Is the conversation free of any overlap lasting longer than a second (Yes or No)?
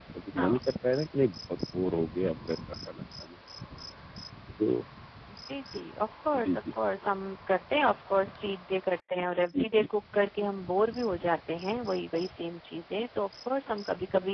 Yes